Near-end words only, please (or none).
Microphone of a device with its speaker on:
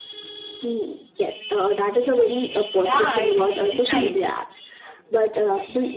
Yeah, it is very nice.